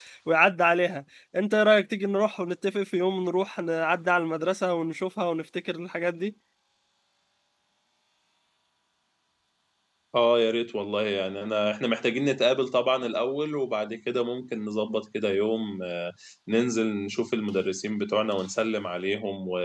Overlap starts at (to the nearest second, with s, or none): none